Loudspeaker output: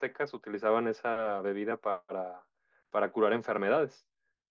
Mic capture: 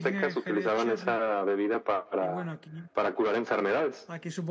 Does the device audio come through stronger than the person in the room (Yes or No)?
Yes